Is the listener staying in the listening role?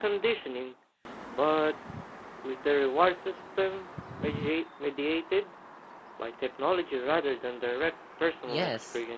No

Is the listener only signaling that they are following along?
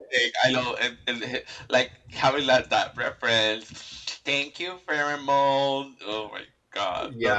No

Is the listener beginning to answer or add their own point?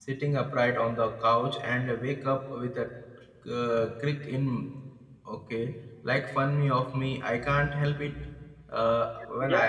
Yes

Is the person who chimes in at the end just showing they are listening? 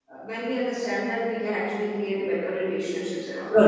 No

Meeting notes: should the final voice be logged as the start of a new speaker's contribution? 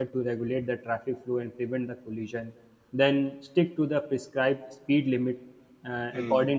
No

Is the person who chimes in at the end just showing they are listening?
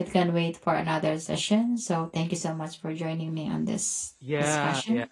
No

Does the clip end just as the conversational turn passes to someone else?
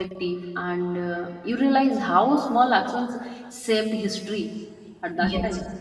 Yes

